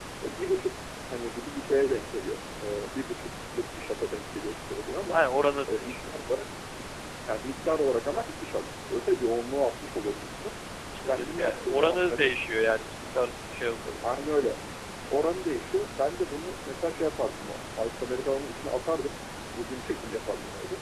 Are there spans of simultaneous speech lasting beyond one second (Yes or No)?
Yes